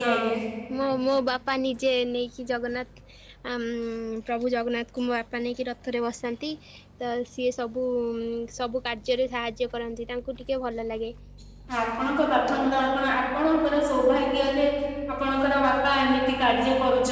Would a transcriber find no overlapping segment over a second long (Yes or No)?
Yes